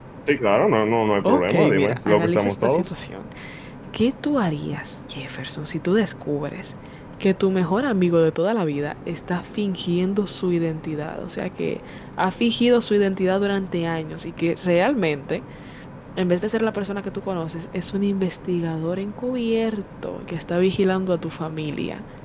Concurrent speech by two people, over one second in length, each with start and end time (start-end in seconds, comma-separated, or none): 1.2-2.8